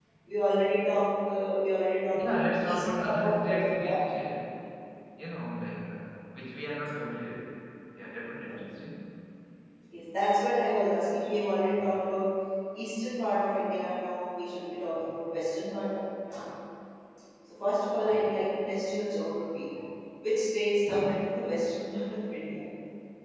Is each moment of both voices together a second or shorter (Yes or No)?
No